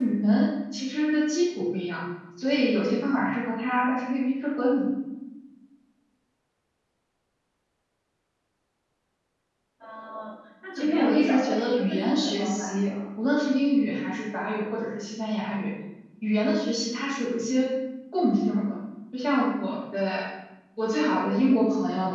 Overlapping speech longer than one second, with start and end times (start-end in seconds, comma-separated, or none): 10.8-12.9